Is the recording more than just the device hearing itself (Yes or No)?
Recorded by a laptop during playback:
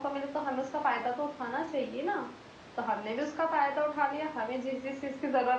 No